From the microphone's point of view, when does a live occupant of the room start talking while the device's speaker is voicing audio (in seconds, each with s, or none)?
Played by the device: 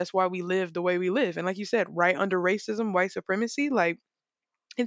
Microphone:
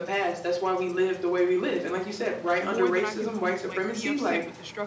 2.6 s